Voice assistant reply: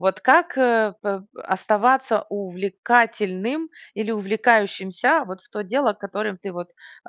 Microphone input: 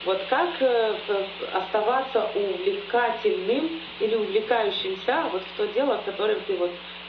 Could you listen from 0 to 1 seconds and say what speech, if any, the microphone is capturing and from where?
echo only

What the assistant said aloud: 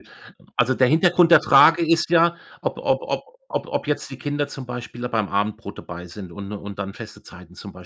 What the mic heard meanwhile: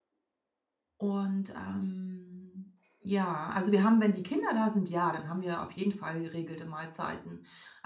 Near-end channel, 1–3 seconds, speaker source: user only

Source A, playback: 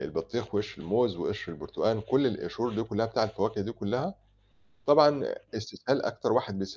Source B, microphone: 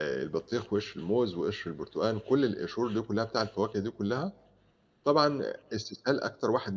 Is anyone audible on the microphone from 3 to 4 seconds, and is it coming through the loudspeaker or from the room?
echo only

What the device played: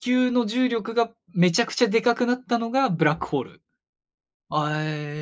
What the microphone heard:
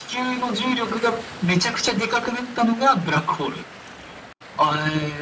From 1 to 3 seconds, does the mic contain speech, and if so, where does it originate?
echo only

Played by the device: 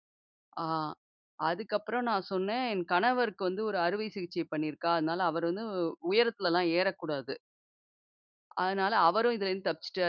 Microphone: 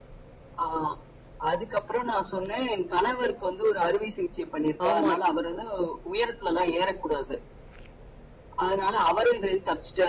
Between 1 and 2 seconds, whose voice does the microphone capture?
echo only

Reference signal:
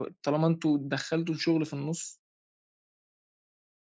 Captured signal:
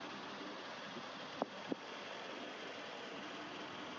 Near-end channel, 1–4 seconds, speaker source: neither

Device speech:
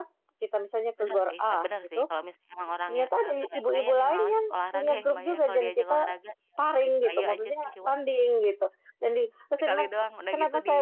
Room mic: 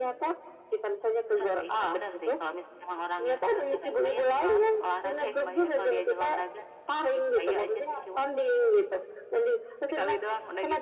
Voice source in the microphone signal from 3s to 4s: echo only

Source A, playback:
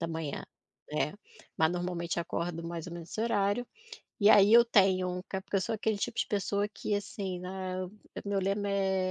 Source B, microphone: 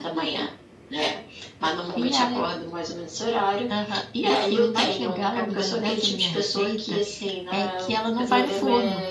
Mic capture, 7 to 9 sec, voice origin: both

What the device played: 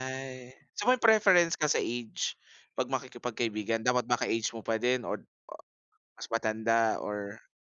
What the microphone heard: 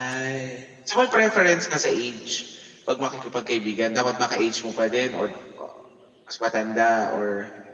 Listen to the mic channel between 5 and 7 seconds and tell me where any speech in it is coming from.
echo only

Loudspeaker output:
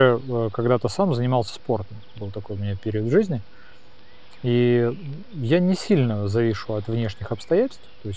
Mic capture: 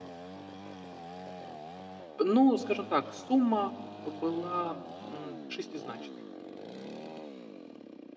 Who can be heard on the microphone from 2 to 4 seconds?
user only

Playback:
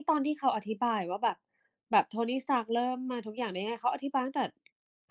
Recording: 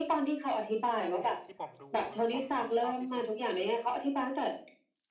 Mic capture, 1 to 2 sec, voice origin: both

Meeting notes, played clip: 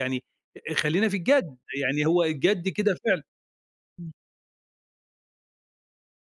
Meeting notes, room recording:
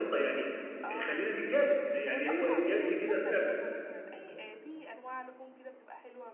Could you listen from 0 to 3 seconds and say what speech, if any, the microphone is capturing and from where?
both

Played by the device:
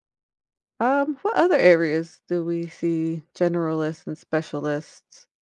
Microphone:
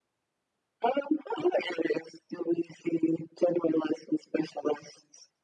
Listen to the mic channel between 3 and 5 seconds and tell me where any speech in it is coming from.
echo only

